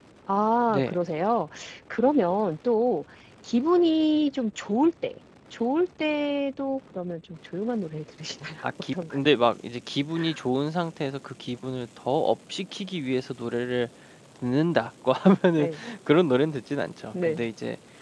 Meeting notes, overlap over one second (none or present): none